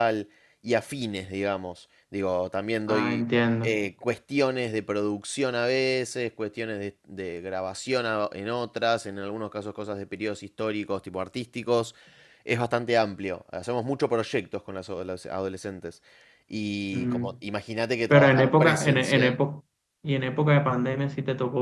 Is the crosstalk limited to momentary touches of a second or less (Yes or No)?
No